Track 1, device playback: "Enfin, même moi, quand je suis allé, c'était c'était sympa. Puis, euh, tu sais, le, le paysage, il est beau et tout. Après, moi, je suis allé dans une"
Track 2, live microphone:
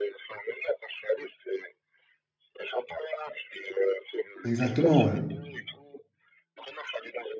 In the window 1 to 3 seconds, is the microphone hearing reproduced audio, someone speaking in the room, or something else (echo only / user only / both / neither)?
echo only